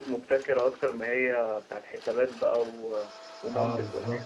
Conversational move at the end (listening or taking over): taking over